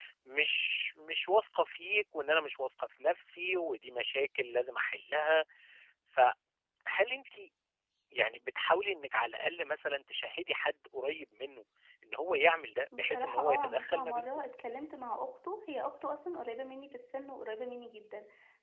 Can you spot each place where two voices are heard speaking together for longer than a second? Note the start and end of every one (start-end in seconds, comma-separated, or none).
13.0-14.3